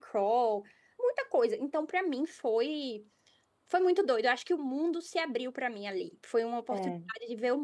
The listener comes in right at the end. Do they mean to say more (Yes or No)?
No